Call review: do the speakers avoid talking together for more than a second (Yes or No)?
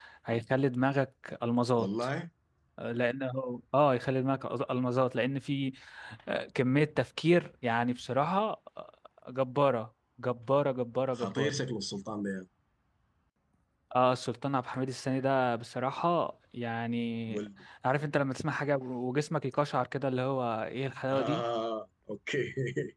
Yes